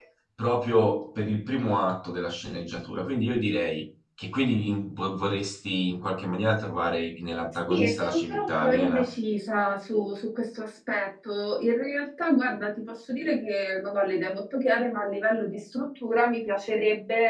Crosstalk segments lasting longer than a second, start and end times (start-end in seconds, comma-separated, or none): 7.7-9.0